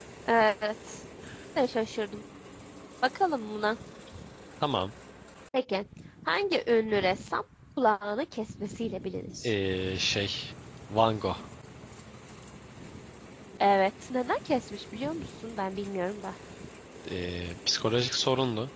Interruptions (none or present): none